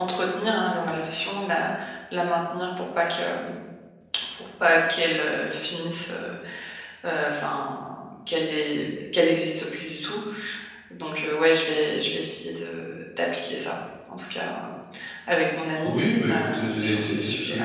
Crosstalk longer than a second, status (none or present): present